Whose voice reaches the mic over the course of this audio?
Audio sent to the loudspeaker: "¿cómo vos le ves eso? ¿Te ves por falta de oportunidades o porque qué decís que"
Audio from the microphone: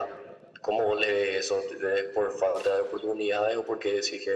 echo only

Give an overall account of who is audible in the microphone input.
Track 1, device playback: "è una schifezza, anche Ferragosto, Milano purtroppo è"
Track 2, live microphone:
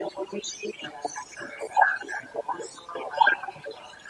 echo only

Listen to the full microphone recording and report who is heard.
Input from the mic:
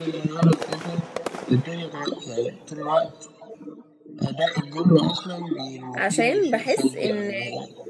both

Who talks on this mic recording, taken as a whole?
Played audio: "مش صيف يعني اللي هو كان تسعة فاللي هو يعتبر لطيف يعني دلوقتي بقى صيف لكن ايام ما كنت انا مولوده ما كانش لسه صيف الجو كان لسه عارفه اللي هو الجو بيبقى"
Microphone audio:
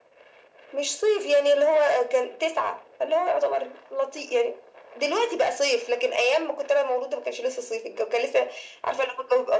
echo only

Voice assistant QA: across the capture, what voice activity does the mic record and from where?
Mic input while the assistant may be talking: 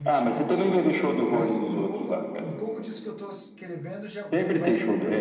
both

